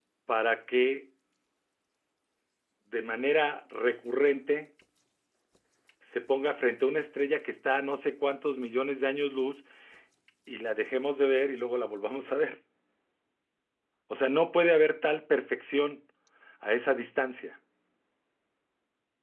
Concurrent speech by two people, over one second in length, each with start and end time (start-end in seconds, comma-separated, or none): none